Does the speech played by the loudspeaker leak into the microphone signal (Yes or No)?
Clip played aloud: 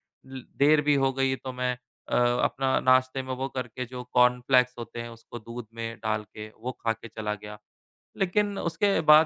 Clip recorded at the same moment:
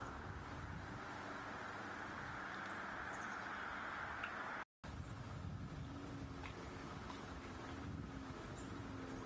No